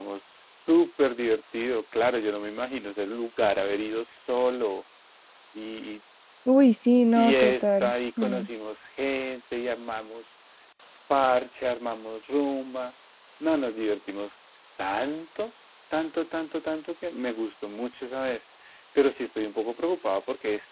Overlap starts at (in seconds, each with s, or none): 7.2 s